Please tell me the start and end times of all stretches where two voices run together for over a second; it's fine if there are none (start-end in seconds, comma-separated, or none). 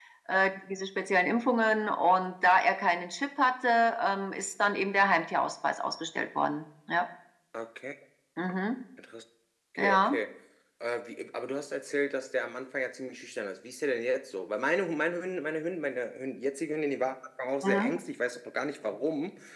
none